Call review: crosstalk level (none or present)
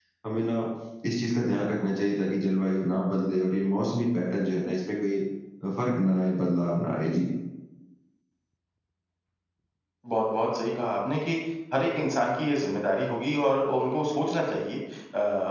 none